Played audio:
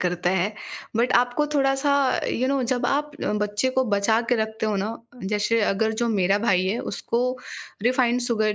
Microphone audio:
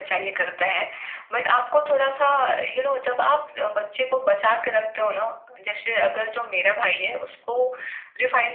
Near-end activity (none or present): none